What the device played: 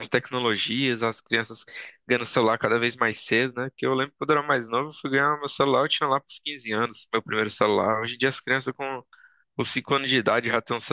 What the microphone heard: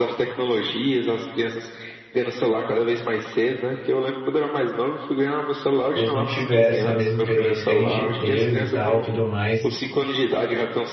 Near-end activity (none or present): present